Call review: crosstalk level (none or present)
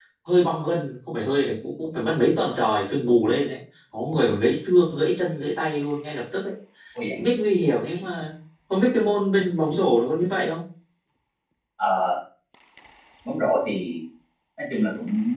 none